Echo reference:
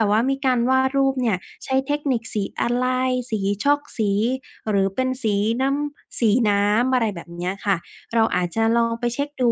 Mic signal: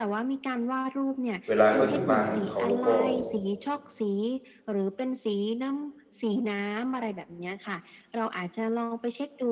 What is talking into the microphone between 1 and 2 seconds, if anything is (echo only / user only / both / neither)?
both